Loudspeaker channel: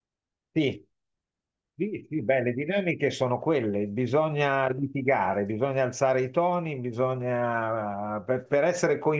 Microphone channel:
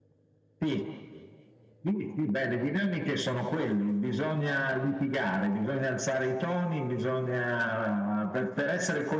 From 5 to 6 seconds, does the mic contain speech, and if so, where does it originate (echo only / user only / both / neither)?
echo only